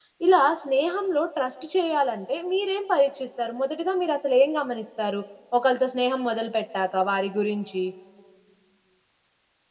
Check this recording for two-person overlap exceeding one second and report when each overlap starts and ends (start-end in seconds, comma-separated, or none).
none